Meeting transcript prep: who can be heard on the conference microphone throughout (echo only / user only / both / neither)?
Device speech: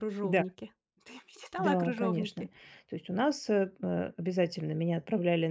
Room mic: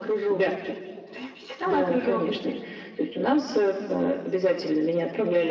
echo only